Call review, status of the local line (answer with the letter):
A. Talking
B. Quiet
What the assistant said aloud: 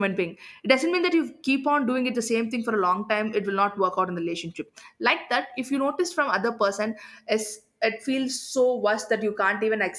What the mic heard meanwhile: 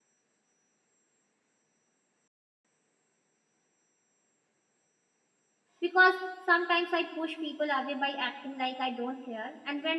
A